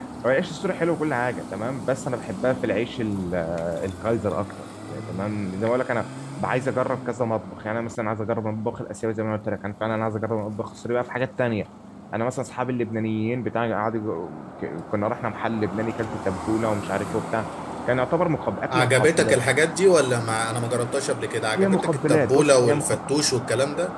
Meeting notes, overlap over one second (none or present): present